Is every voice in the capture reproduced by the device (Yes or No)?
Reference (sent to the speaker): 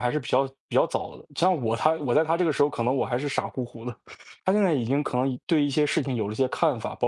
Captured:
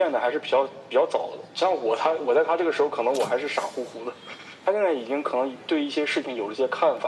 Yes